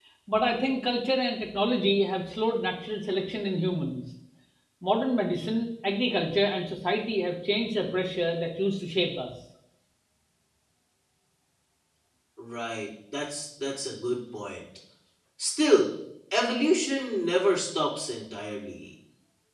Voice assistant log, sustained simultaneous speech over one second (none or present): none